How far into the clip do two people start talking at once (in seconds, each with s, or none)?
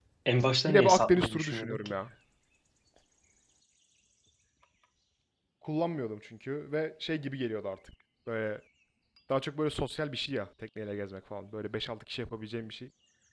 0.7 s